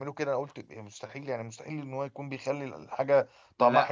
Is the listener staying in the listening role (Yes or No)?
Yes